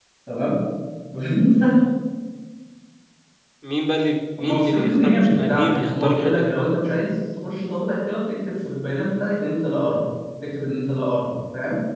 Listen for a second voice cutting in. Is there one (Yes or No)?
Yes